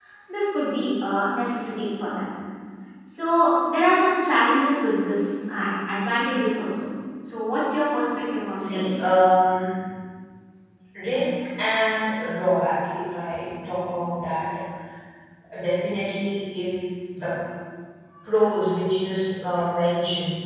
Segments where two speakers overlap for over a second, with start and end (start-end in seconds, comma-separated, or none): none